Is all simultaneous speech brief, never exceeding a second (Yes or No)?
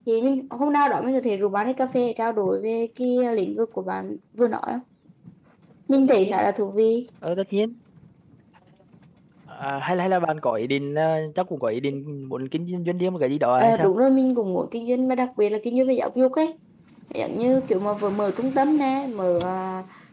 Yes